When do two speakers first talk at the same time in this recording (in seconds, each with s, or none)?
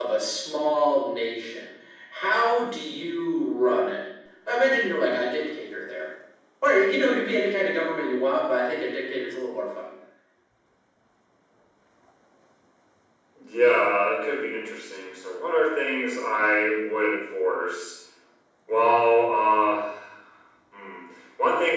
none